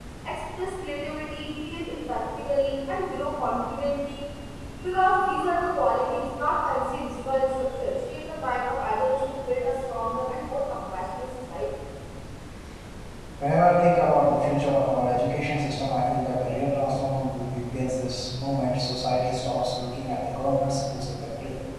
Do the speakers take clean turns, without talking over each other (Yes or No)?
Yes